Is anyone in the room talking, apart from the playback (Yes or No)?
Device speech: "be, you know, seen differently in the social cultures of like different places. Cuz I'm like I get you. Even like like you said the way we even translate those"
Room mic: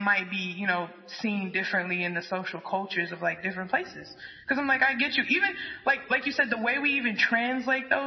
No